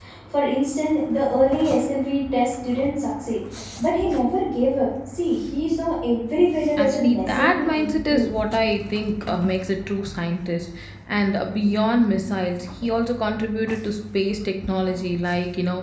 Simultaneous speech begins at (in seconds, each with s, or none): 6.8 s